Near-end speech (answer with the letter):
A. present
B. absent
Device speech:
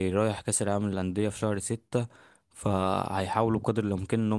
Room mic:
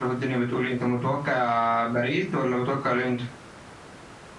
A